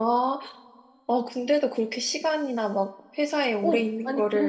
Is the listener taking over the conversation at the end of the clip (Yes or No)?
Yes